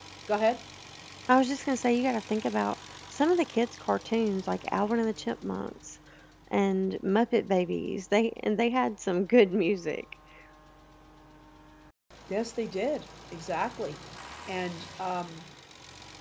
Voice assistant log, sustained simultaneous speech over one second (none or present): none